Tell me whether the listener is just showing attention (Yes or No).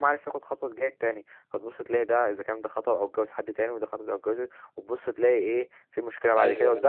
Yes